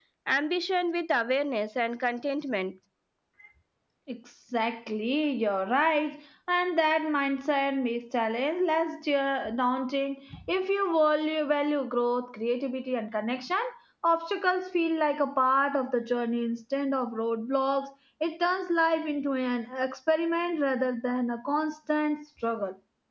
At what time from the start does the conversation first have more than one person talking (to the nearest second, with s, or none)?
none